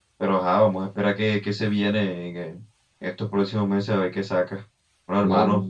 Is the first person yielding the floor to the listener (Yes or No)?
No